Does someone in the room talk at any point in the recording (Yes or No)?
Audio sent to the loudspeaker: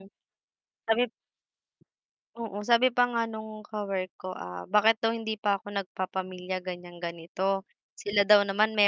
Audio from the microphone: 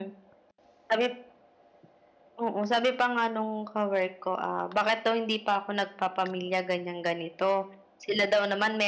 No